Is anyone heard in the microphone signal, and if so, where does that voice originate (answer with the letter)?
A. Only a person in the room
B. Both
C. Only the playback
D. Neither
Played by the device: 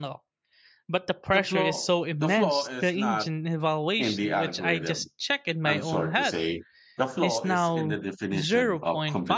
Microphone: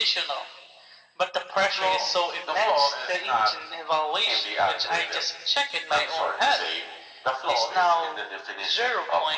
C